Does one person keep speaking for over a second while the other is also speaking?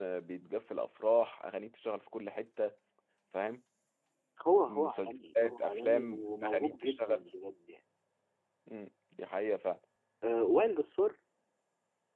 Yes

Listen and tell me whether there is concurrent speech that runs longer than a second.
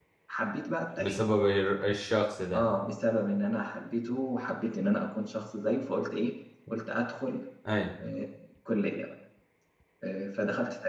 No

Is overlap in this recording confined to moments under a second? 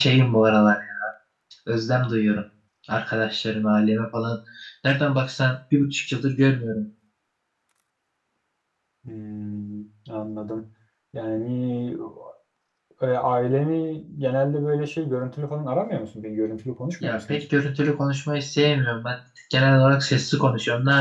Yes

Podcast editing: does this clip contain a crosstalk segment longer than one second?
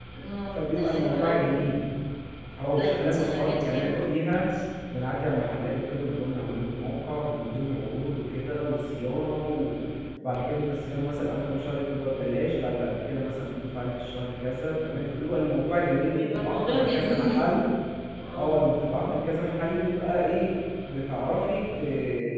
Yes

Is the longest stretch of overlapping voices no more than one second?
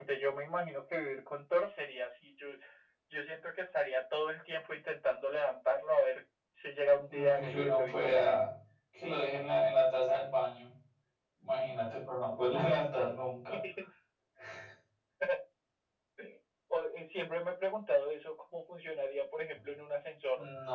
No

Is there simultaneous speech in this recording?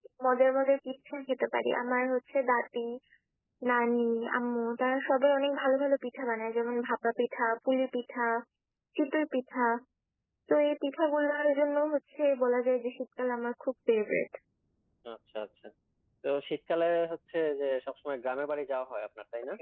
No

